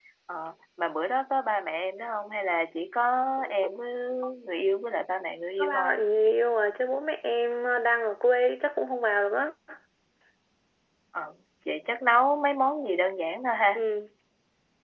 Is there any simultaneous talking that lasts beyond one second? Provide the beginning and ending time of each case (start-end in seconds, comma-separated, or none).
none